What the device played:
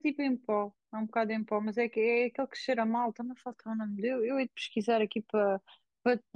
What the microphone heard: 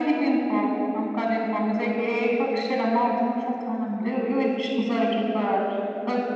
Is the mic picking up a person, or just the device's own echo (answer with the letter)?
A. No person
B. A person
A